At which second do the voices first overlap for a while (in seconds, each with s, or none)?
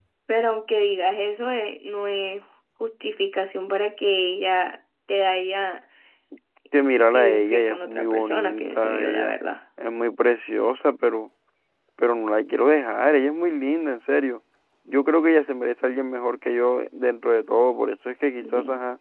7.0 s